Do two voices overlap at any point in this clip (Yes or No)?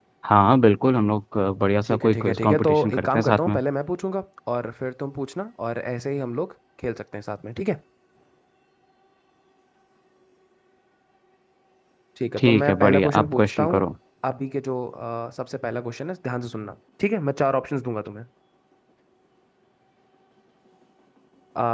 Yes